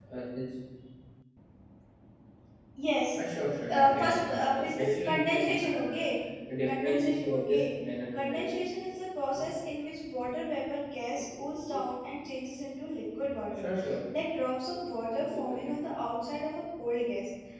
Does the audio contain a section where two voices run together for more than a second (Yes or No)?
Yes